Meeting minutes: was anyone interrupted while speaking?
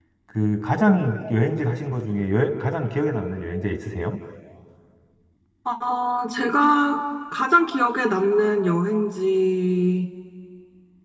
No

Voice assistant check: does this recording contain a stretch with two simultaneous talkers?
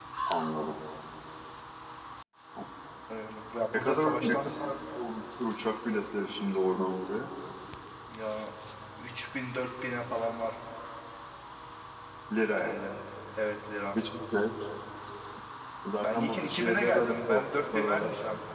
Yes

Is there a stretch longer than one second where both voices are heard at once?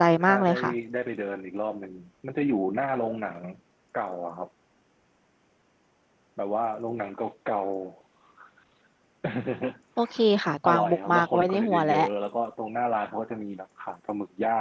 Yes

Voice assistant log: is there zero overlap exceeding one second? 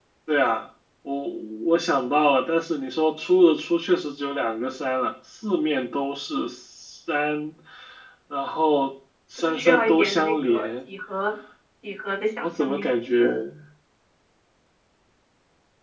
No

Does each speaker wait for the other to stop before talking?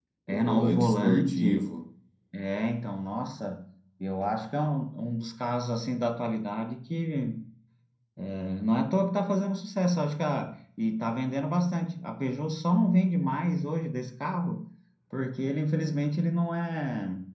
No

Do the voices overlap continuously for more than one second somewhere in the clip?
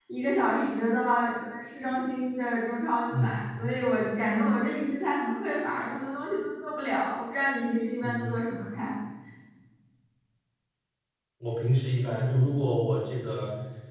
No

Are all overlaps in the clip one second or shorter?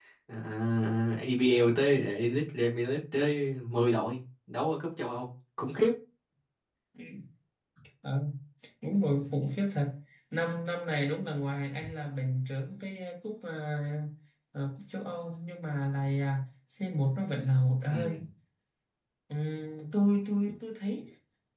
Yes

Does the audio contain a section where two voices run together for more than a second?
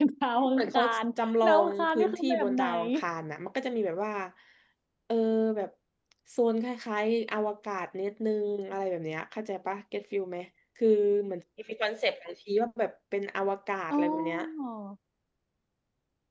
Yes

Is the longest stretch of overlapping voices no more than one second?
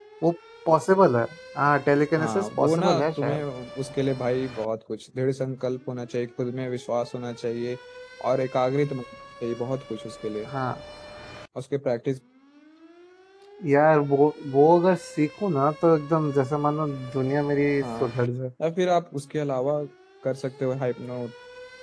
No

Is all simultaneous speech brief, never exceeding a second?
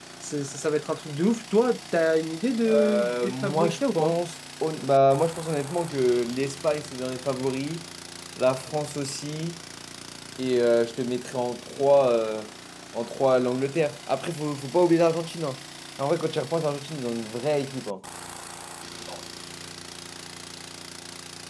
No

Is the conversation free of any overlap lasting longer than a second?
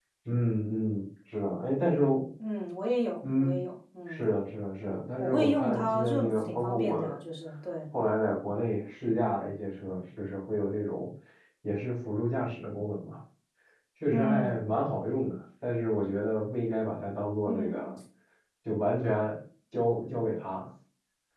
No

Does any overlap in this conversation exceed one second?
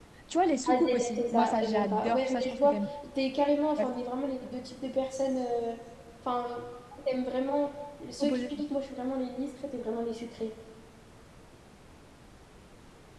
Yes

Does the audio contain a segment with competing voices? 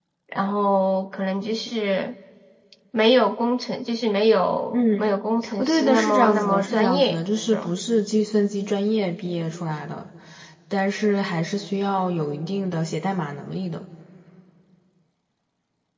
Yes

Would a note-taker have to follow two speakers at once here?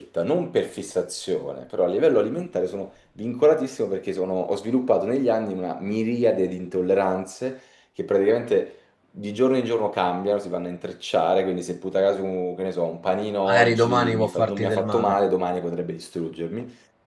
Yes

